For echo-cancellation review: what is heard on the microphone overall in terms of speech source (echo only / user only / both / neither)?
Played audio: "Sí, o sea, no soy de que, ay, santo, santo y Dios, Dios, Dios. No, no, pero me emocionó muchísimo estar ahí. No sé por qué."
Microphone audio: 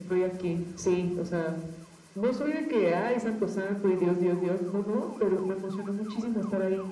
echo only